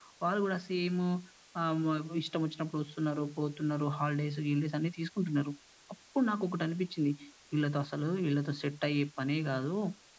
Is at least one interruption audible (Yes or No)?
No